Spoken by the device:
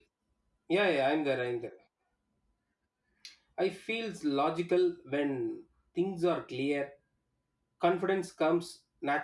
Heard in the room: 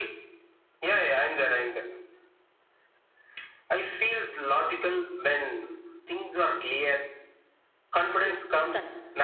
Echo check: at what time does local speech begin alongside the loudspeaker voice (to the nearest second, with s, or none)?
8 s